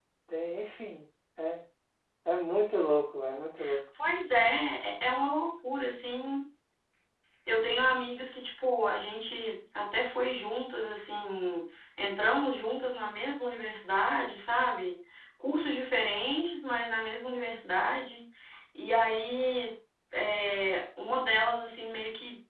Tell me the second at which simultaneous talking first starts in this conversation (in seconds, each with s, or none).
none